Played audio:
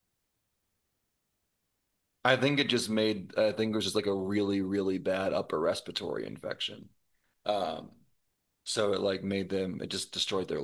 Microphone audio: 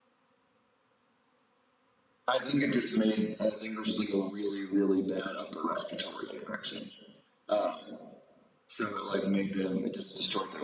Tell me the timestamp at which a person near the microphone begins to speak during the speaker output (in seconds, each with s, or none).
none